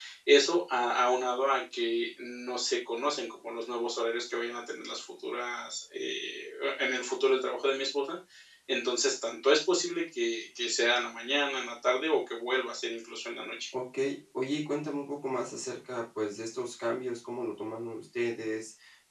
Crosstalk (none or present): none